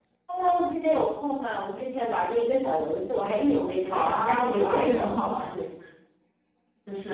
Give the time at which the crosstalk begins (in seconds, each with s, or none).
3.9 s